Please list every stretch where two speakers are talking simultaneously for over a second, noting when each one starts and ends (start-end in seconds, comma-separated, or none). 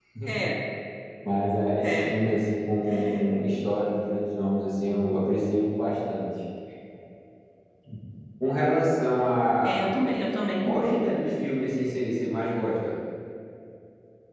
none